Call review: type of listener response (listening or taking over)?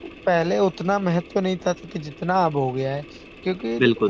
listening